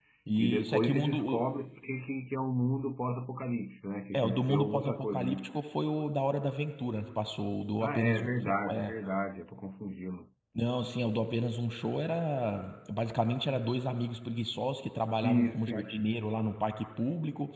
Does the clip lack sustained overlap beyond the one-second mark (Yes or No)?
No